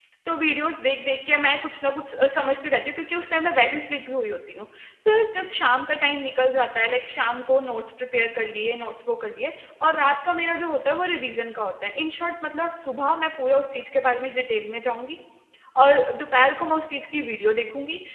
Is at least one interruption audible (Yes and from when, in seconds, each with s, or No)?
No